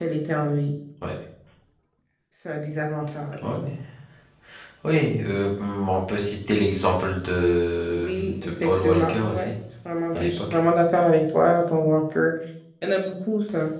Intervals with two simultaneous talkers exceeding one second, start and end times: 7.9-9.5

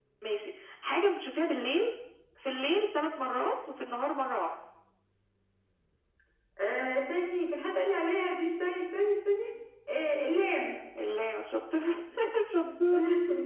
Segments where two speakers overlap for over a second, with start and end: none

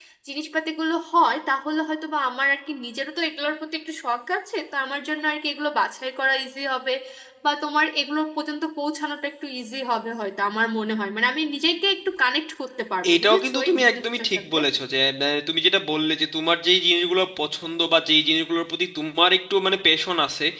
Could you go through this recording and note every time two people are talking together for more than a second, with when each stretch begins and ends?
13.1-14.6

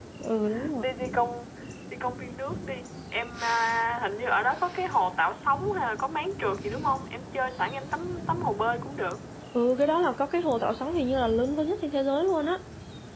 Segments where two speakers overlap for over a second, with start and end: none

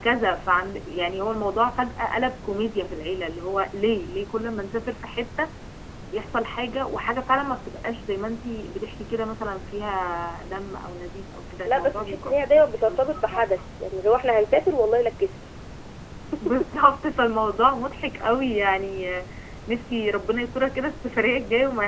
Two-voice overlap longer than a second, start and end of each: 11.7-13.4

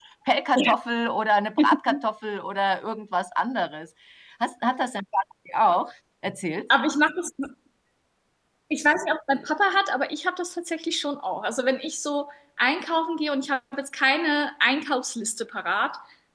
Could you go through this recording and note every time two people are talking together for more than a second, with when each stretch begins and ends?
none

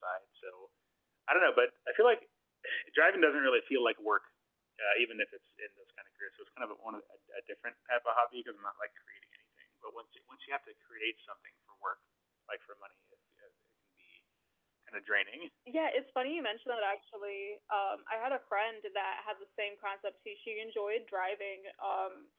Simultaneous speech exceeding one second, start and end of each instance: none

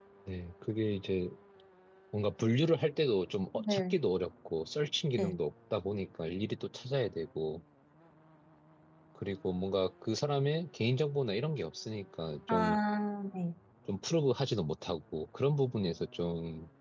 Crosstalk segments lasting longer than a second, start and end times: none

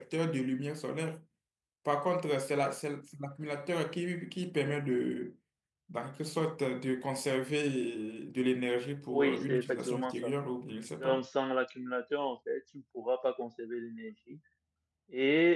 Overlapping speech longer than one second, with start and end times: 9.1-10.3

